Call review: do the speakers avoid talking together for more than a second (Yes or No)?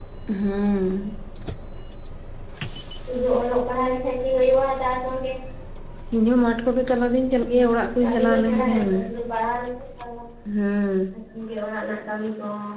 No